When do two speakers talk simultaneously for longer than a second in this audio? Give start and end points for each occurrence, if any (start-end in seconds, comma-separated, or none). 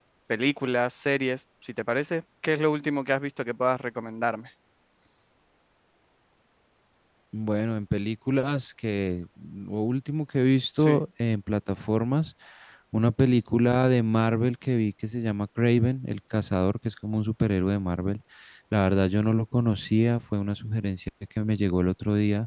none